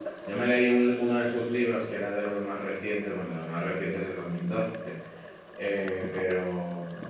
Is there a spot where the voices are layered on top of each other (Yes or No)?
No